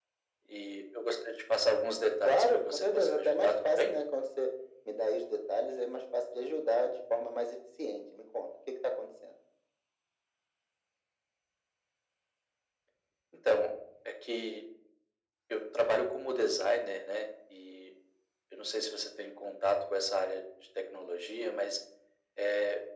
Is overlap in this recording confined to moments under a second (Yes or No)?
No